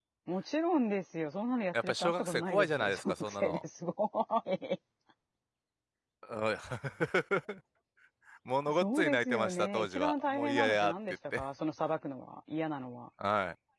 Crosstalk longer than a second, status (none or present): present